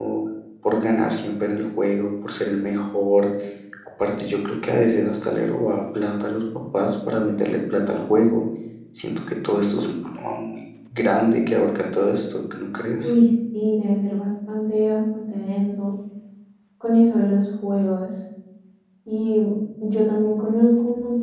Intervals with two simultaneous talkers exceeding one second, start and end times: none

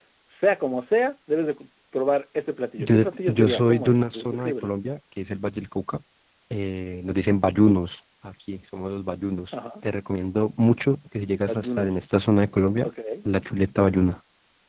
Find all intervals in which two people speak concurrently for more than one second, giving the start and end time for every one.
2.8-4.7

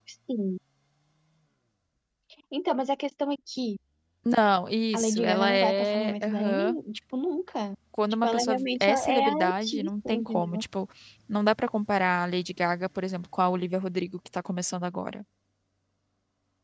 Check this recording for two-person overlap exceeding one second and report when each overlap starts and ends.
4.9-6.8, 8.2-10.6

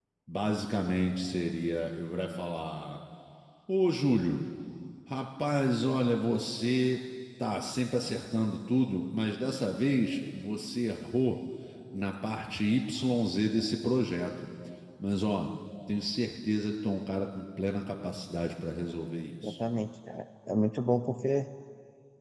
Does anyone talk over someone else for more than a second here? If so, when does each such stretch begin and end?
none

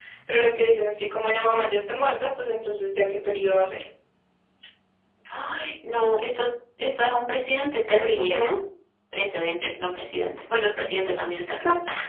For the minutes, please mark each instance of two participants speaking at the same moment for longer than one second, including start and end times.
none

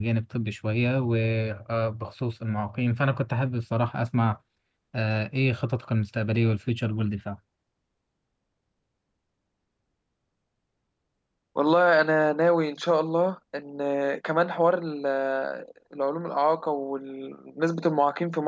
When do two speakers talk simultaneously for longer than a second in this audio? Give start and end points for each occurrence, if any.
none

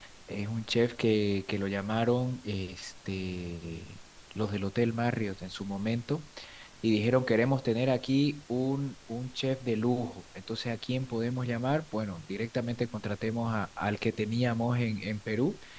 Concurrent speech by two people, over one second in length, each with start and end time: none

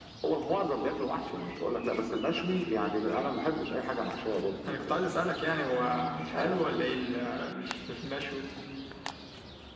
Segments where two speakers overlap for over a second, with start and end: 5.7-6.8

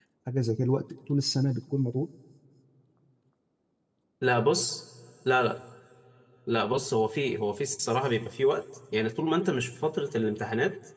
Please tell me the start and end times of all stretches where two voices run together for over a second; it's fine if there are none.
none

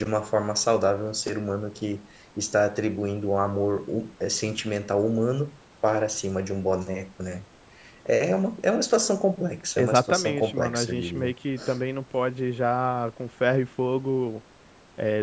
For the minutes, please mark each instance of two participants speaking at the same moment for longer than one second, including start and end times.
9.8-11.3

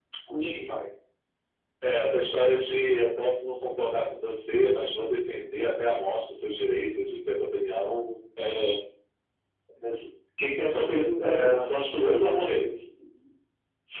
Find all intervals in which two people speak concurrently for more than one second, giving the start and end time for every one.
11.2-12.7

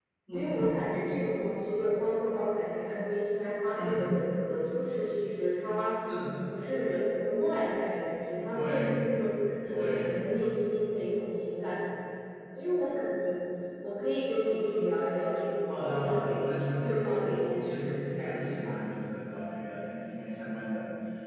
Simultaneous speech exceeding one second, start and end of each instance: 15.7-18.8

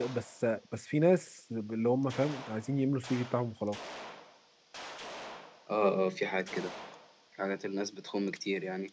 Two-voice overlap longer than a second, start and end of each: none

